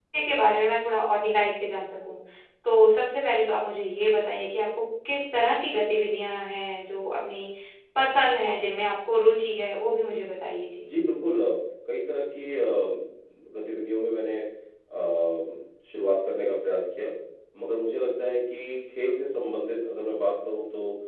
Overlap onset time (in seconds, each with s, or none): none